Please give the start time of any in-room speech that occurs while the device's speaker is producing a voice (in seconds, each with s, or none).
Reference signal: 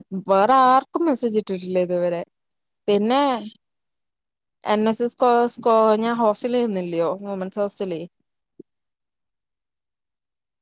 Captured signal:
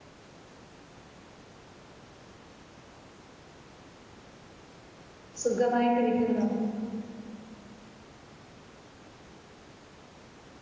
5.4 s